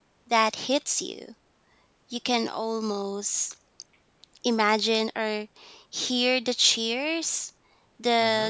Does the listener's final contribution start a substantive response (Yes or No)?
No